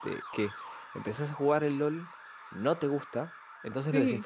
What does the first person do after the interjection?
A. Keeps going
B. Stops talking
A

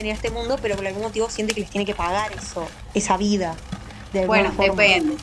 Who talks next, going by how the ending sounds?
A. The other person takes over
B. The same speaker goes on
A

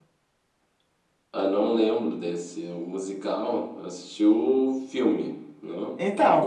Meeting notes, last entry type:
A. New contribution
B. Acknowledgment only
A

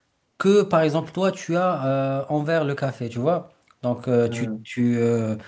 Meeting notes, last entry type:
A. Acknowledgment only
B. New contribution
A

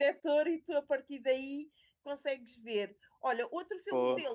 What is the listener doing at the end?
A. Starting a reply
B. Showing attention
B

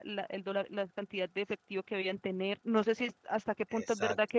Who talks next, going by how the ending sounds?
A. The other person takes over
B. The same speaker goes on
B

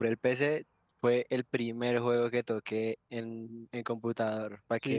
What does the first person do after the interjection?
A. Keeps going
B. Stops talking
B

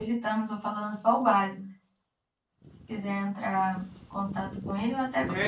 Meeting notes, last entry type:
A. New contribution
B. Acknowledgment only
A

